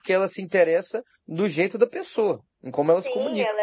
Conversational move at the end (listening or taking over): taking over